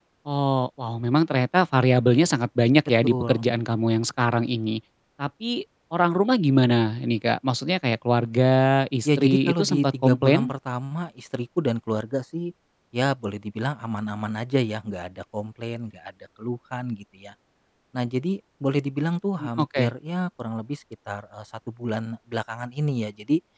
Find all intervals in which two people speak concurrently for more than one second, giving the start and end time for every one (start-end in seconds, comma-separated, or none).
9.1-10.5